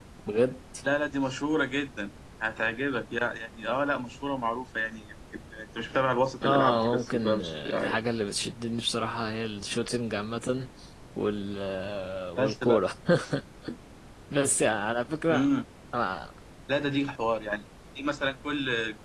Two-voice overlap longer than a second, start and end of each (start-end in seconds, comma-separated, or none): 6.4-8.0